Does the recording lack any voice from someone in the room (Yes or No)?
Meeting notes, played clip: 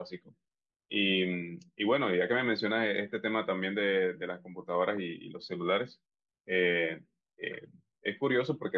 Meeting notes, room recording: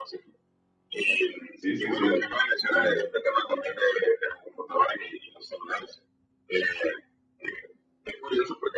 No